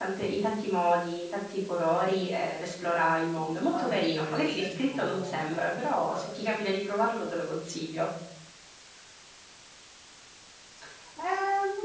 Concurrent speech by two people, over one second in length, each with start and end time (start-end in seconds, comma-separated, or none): 3.7-6.7